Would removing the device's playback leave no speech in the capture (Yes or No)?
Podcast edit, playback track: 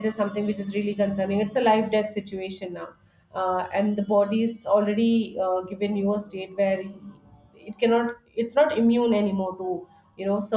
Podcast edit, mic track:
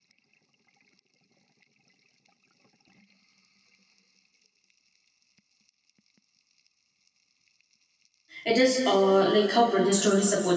No